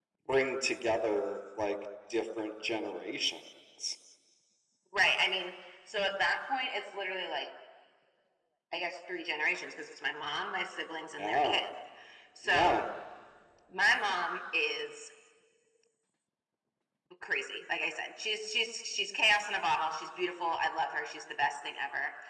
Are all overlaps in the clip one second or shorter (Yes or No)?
Yes